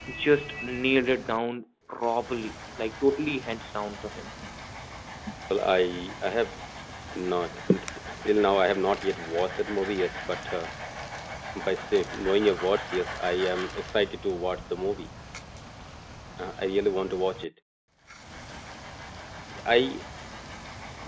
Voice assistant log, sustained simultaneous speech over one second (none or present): none